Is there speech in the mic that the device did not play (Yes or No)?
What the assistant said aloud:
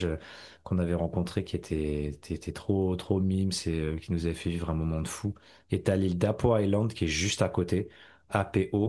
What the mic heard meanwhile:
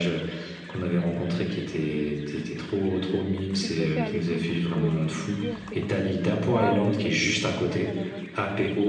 Yes